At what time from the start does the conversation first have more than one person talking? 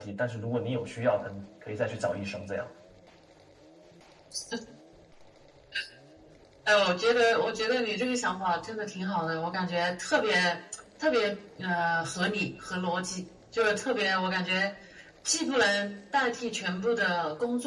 none

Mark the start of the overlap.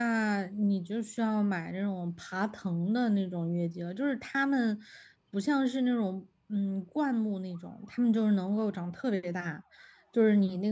none

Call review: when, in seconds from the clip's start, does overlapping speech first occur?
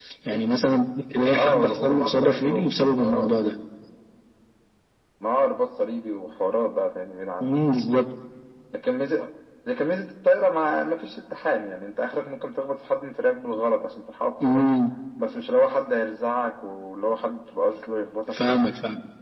1.4 s

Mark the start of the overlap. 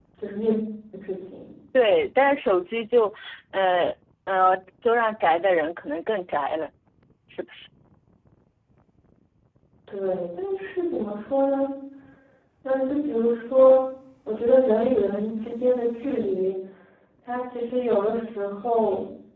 none

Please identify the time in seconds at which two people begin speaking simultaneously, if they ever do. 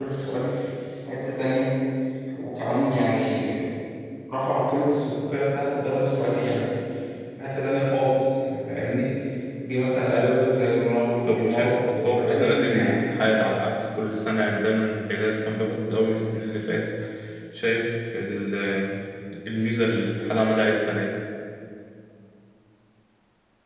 11.2 s

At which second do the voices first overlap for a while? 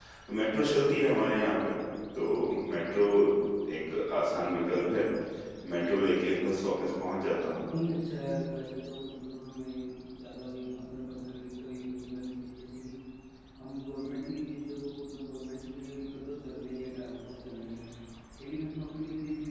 none

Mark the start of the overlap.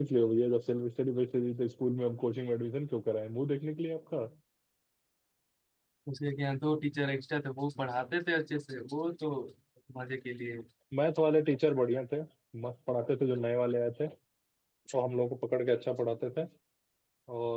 none

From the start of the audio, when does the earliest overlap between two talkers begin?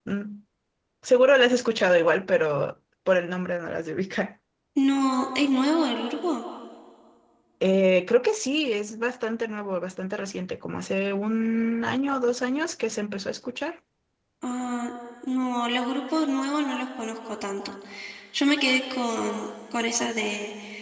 none

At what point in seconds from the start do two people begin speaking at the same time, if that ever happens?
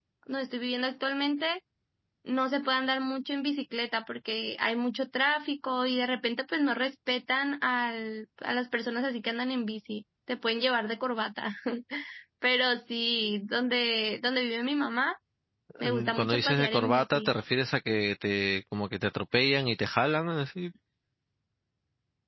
15.8 s

